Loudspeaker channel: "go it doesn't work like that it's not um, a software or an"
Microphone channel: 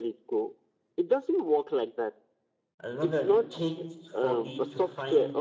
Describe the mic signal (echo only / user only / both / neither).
both